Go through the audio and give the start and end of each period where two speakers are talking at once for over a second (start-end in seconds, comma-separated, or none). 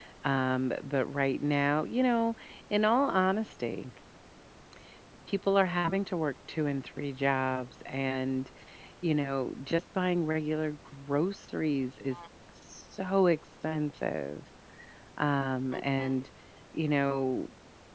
none